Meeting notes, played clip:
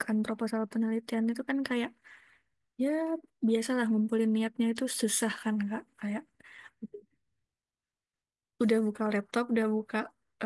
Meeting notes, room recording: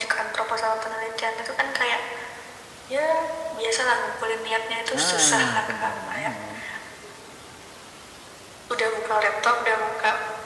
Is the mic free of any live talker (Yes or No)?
No